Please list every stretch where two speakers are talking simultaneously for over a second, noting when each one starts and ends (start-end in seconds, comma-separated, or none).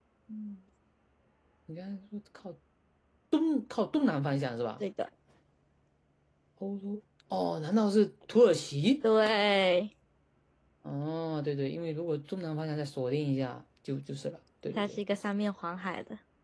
none